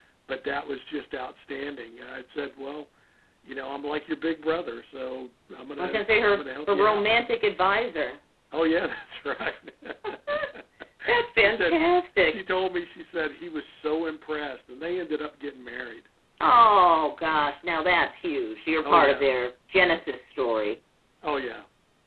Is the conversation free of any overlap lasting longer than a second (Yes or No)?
No